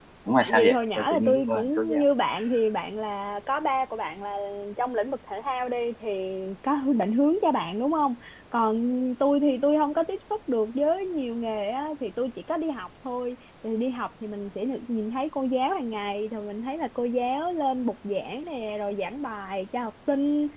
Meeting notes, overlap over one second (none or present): present